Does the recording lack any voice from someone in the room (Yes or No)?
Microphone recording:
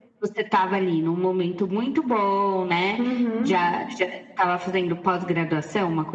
No